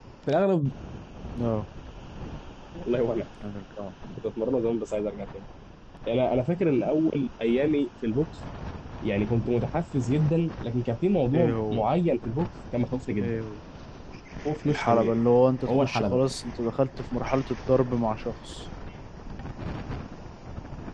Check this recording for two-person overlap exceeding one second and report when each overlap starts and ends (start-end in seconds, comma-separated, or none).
none